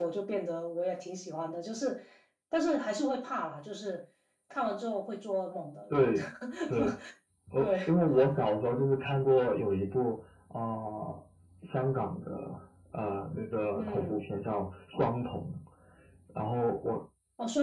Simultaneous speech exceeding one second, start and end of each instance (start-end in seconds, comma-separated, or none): none